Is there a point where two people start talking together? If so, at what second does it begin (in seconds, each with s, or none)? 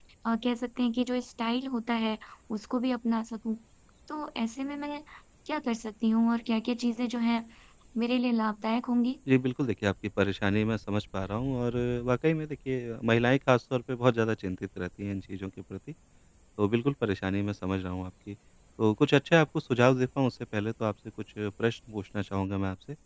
none